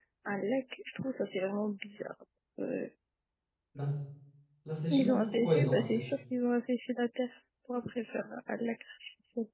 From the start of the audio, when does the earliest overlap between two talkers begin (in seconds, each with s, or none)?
4.9 s